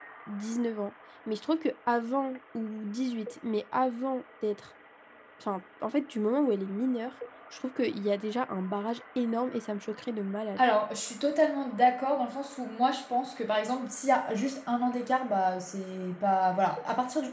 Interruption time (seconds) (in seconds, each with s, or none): none